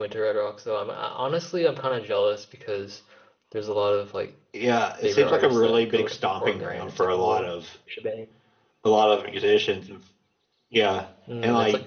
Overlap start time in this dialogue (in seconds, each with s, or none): 5.0 s